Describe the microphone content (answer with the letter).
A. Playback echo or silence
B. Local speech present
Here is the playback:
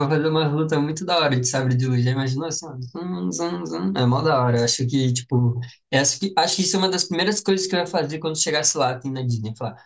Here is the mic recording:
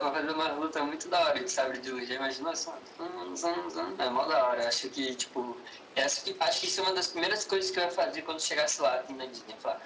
A